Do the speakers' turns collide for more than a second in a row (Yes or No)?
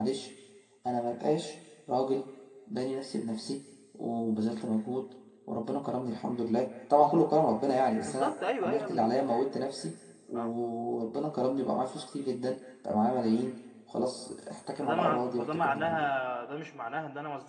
Yes